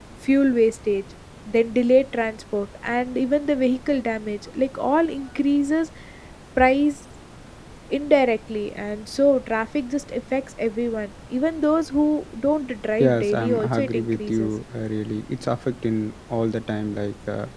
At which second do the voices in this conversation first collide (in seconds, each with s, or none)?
13.0 s